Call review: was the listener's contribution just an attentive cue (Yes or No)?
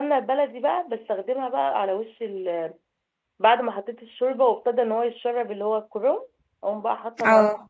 Yes